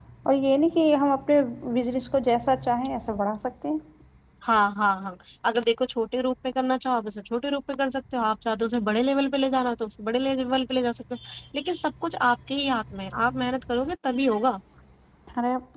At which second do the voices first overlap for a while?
none

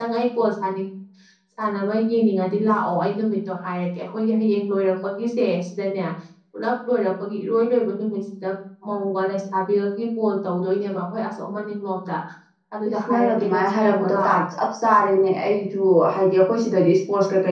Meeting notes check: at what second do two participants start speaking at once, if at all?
13 s

